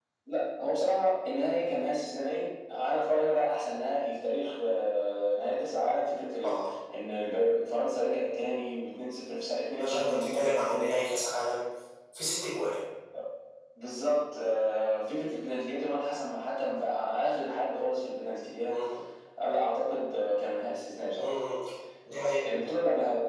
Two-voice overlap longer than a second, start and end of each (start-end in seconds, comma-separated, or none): 9.8-11.1